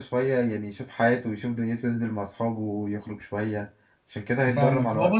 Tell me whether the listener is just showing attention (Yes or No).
No